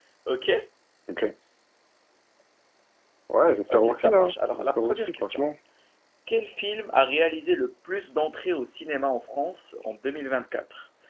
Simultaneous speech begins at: 4 s

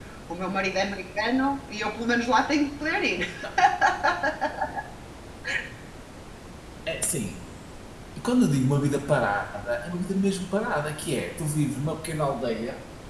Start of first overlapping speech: none

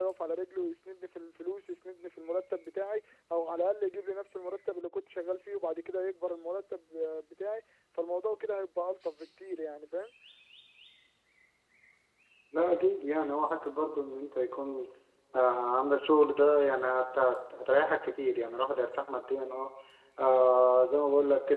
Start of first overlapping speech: none

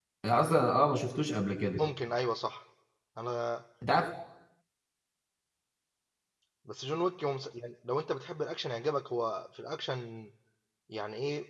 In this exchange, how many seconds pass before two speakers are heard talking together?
none

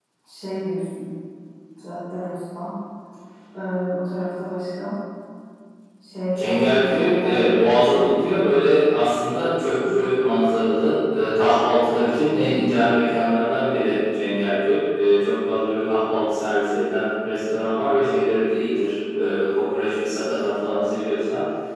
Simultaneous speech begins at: 6 s

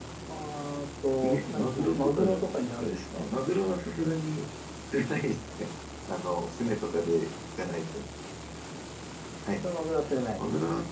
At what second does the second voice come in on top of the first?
1 s

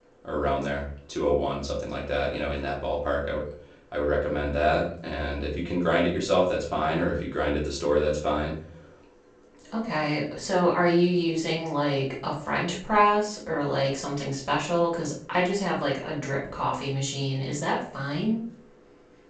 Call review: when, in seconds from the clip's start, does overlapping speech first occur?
none

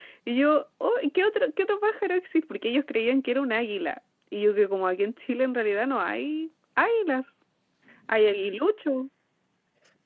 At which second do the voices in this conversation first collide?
none

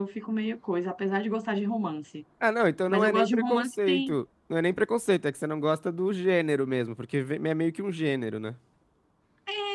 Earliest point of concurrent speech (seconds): 3 s

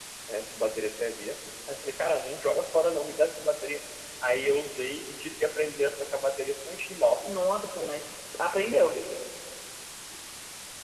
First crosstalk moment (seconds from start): none

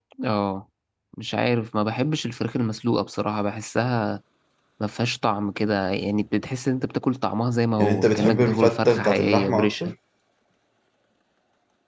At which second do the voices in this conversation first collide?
8 s

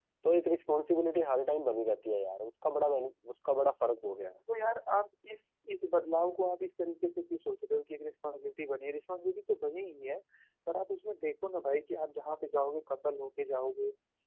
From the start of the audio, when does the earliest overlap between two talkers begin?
none

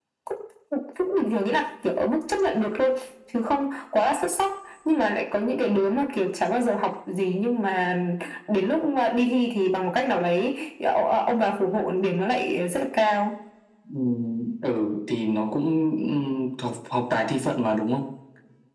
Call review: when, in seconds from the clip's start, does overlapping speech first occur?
none

